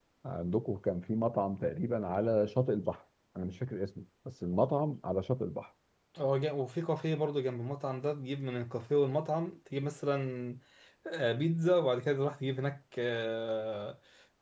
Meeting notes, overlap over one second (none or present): none